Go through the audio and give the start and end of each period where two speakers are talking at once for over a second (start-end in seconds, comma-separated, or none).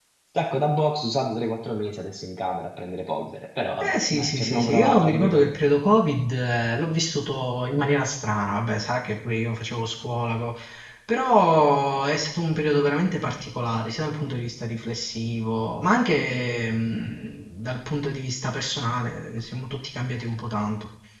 3.8-5.5